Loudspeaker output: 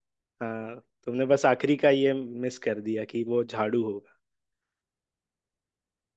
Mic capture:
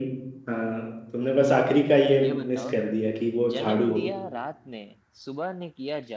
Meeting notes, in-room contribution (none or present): present